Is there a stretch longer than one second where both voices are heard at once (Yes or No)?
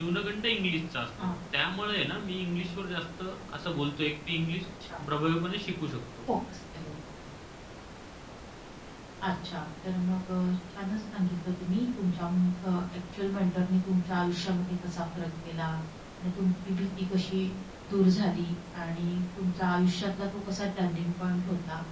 No